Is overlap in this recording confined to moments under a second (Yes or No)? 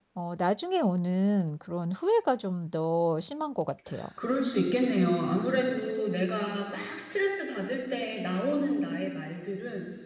Yes